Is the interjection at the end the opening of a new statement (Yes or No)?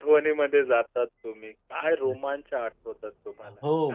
Yes